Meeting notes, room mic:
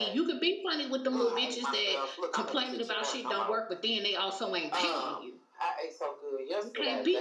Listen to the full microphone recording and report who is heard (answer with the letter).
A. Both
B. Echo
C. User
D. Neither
A